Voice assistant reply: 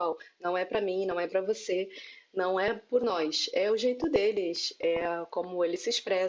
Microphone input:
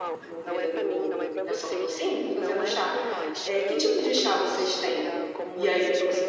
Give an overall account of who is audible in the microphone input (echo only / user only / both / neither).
both